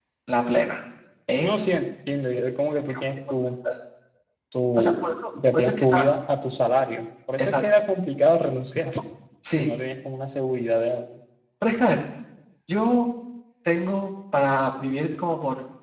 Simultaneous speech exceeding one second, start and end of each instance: 4.8-6.1

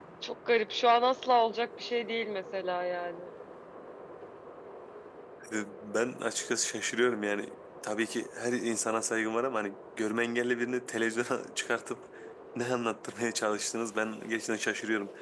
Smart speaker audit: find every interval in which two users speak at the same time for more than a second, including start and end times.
none

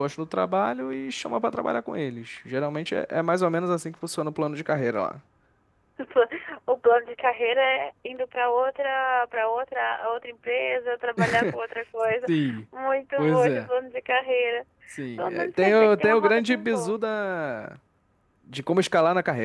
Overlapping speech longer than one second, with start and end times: 15.2-17.0

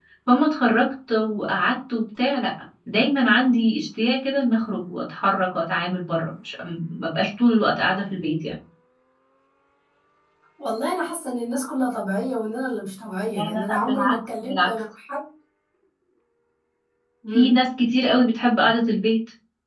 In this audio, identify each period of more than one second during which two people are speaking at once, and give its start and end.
13.3-14.7

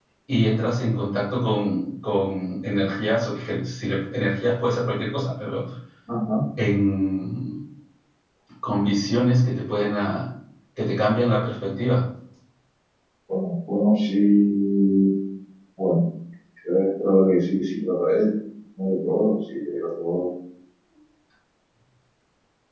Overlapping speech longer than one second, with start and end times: none

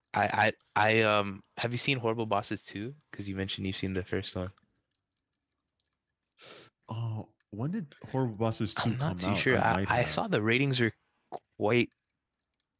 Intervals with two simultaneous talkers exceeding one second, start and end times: 8.8-10.2

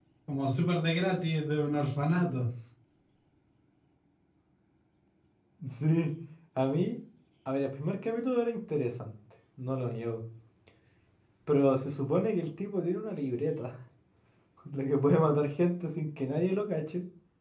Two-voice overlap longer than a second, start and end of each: none

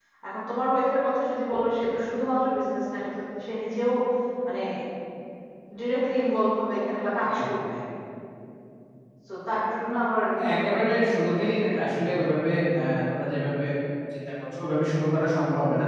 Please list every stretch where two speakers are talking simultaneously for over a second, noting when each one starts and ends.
10.3-12.0

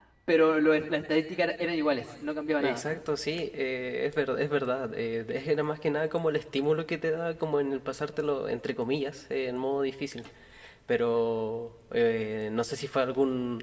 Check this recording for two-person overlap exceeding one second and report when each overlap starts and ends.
none

